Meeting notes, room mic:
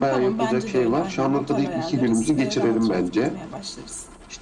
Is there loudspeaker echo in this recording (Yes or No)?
Yes